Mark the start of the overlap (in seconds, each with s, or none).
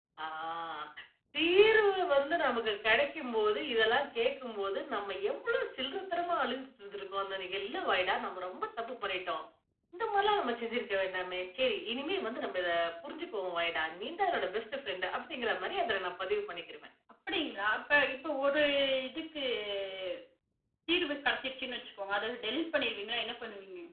none